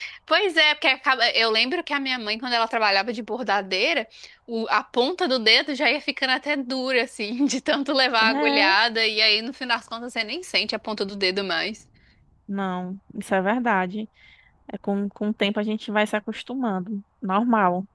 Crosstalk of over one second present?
No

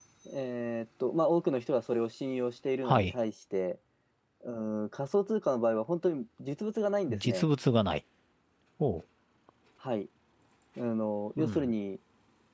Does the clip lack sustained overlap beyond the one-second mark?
Yes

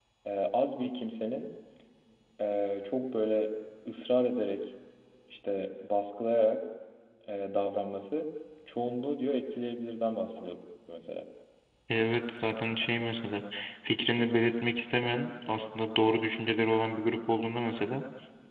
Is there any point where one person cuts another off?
No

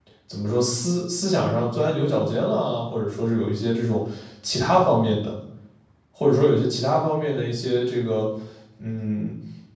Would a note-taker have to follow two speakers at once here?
No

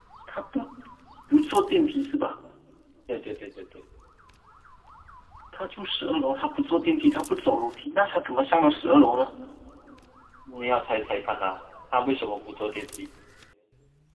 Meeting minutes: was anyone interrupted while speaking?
No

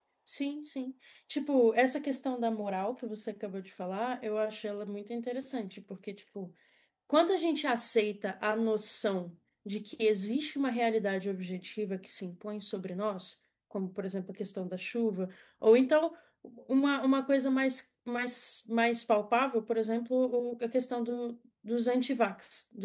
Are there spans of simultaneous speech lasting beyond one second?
No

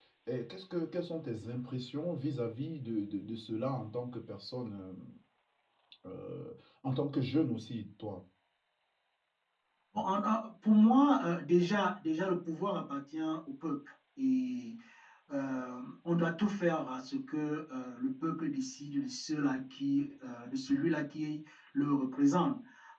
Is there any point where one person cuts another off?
No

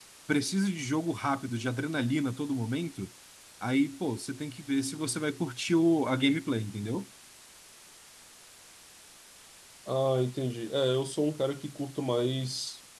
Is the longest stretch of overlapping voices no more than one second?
Yes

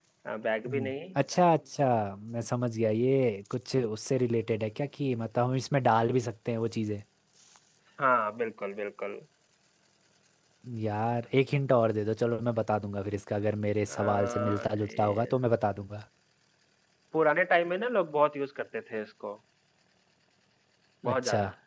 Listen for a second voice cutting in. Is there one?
Yes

